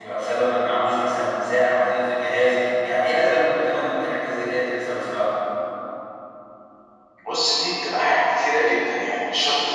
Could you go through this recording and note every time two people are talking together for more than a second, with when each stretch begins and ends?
none

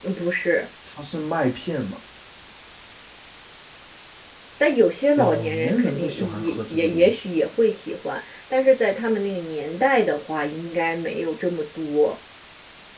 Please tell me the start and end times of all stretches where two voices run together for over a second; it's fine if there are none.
5.2-7.3

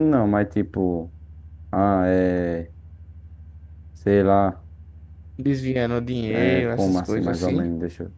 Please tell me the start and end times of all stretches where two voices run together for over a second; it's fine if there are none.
6.3-7.7

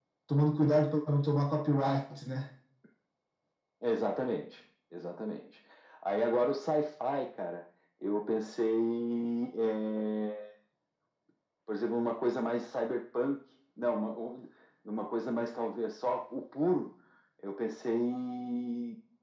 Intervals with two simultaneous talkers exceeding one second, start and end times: none

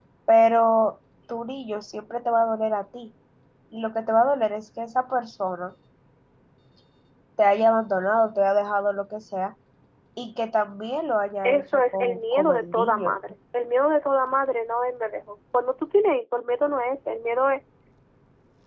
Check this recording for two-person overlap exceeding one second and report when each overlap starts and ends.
11.4-13.2

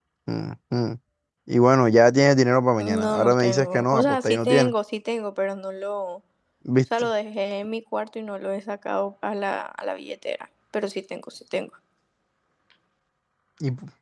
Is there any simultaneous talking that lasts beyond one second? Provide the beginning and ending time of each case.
2.8-4.7

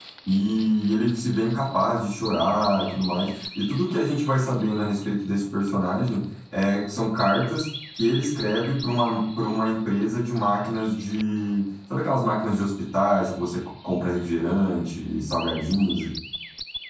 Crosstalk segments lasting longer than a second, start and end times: none

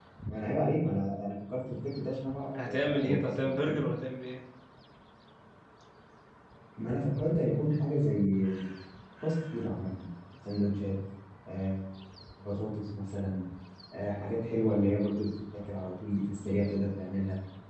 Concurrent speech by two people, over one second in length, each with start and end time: 2.6-3.8

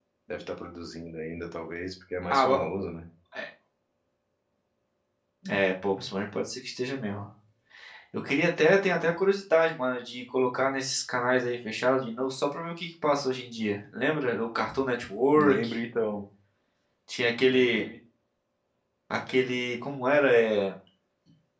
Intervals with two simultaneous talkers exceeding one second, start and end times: none

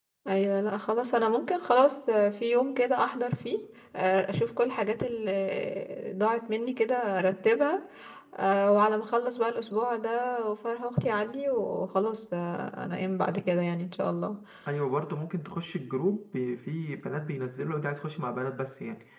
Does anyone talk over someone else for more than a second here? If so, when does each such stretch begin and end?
none

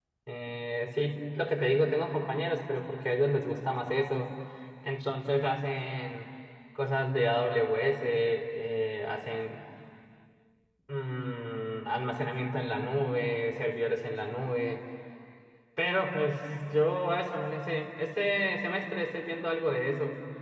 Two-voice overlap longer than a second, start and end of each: none

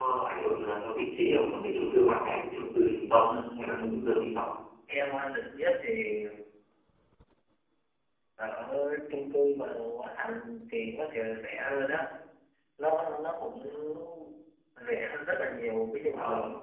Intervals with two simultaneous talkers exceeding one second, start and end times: 3.0-4.4

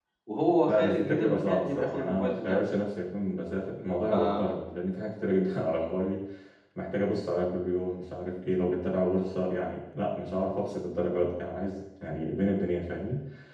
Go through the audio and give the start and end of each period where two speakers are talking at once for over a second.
0.7-2.6

